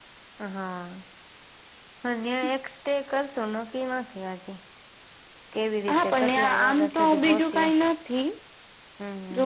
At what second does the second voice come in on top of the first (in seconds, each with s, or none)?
5.9 s